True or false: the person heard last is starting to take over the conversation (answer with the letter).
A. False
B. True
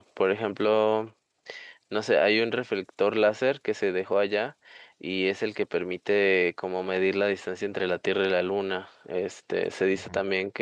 A